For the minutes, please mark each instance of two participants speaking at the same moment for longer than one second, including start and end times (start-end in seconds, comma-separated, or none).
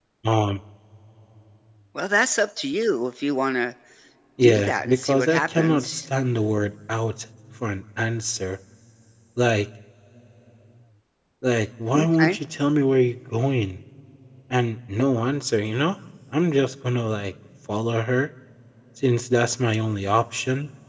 4.4-6.0